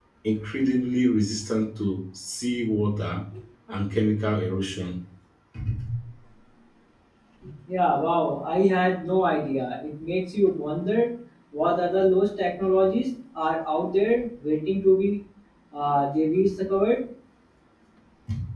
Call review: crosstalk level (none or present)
none